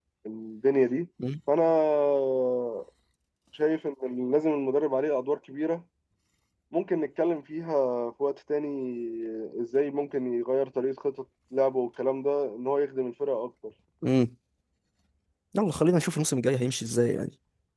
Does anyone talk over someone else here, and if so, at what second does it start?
none

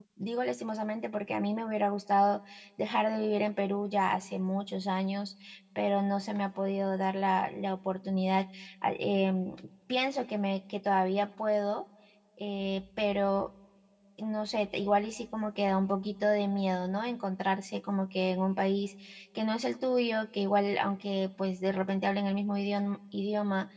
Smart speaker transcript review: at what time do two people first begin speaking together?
none

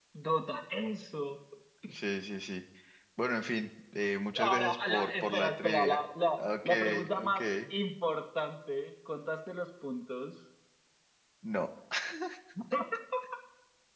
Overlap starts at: 4.3 s

